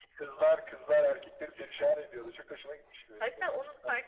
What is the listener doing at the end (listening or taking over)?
taking over